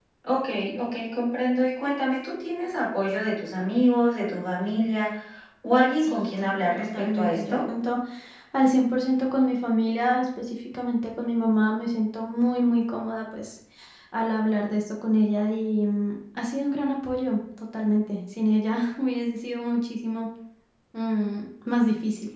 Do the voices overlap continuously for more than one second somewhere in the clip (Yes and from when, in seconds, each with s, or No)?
Yes, from 6.0 s